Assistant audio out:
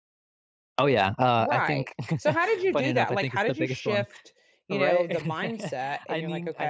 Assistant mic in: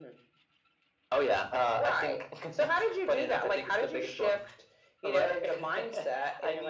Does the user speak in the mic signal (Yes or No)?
No